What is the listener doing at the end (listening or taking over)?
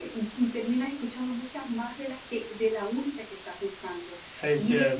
listening